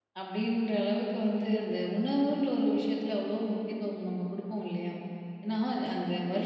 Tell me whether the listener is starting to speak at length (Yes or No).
No